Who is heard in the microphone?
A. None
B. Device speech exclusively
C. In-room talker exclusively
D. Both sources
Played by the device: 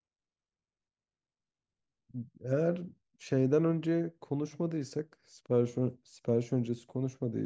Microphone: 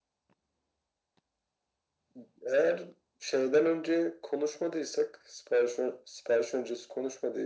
B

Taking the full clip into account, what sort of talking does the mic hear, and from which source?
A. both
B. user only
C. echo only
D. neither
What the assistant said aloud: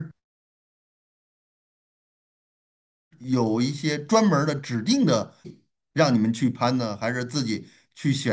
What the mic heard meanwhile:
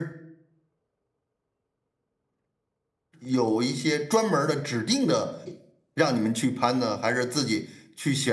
C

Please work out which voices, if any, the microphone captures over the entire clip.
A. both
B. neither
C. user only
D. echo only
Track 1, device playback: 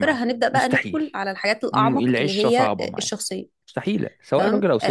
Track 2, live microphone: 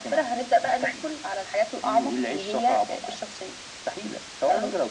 D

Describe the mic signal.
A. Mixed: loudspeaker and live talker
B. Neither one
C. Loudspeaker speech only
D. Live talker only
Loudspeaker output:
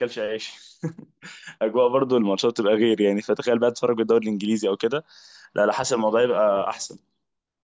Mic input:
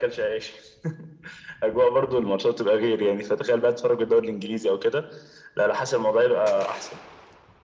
C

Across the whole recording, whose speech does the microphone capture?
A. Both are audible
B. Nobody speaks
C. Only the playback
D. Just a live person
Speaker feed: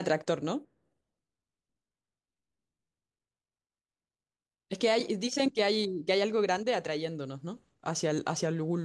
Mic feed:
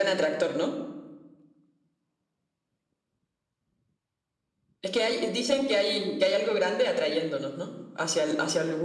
C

